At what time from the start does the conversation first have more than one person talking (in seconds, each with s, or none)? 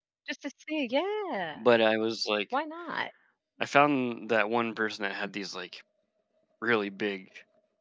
none